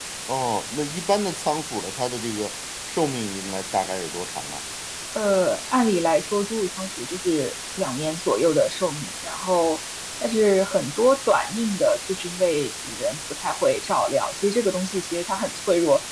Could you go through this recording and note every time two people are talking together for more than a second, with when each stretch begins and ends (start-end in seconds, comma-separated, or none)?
none